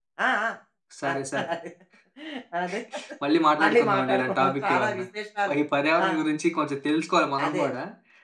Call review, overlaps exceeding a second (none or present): present